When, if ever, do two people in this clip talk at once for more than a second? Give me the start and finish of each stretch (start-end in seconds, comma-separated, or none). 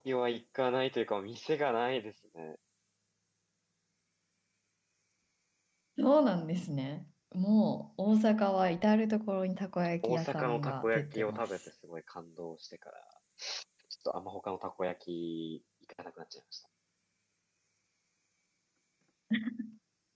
10.0-11.5